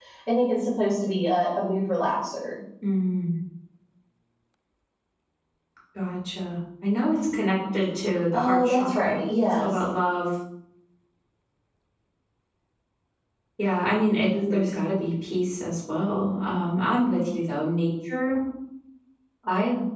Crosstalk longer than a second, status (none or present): present